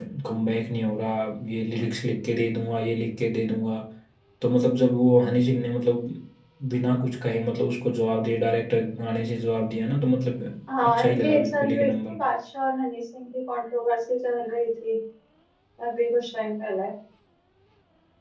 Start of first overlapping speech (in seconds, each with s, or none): 10.7 s